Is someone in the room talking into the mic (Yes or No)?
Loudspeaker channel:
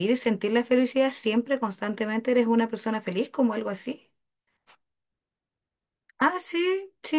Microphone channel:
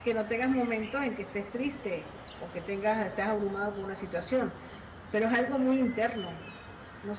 Yes